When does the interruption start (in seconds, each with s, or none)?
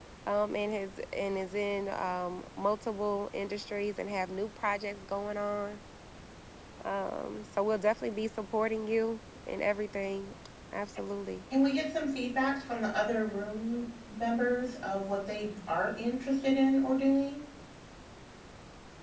none